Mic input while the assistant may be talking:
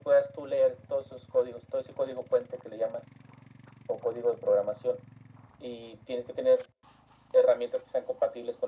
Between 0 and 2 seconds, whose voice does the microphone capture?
echo only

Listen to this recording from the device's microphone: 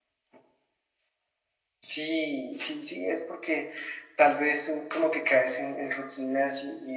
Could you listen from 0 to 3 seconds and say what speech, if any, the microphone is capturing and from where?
echo only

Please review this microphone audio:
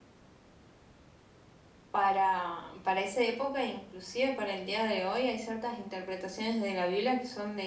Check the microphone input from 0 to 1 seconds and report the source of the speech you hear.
neither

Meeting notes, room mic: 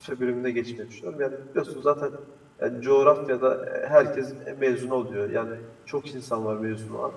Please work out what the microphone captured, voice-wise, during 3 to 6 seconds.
user only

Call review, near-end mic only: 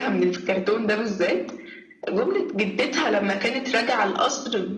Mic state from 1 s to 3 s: echo only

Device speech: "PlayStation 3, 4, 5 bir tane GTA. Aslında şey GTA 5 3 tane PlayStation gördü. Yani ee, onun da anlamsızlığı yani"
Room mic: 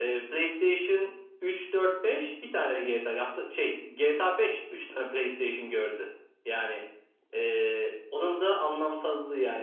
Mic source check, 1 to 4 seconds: echo only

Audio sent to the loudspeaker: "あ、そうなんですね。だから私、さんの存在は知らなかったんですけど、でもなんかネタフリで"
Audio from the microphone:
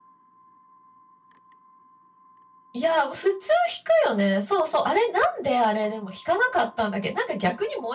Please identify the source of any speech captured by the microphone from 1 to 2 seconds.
neither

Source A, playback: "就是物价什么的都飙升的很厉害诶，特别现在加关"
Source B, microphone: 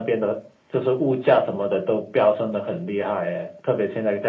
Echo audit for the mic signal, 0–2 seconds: echo only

